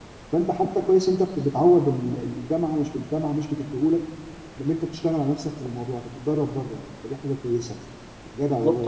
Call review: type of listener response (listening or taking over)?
taking over